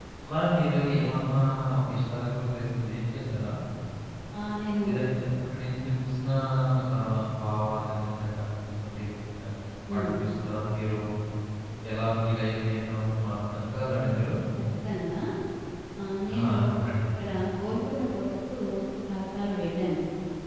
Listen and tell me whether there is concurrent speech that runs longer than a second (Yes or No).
No